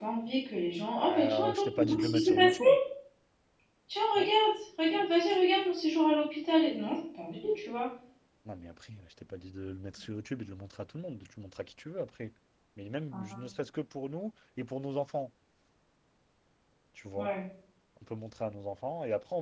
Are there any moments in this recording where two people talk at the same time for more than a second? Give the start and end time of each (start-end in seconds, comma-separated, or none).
0.9-2.5